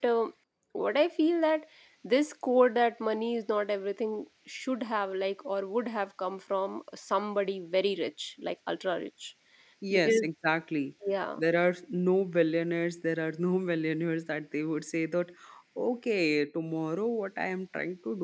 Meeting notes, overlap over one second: none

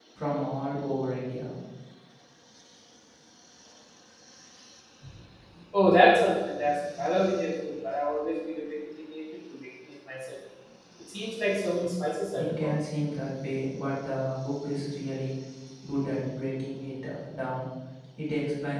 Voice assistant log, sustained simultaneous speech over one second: none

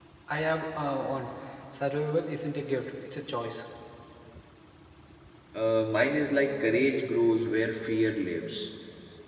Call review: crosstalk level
none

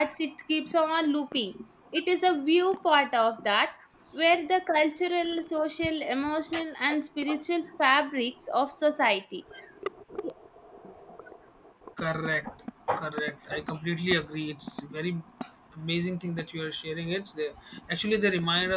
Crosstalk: none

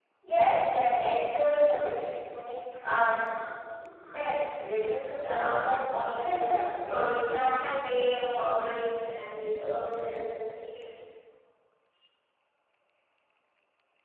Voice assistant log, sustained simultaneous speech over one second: present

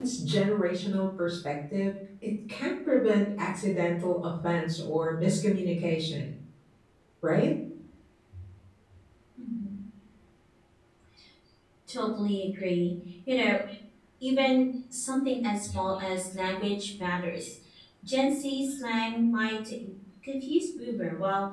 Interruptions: none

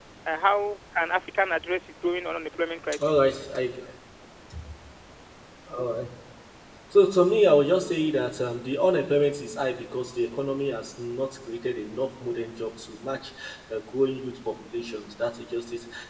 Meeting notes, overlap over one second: none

